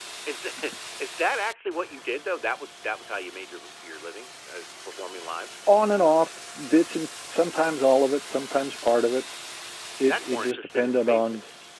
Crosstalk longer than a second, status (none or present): present